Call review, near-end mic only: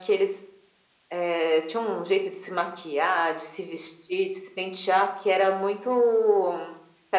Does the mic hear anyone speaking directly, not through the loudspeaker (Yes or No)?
No